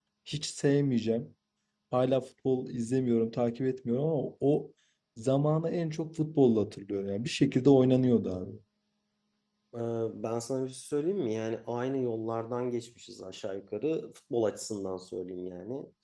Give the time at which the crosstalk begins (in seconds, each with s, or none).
none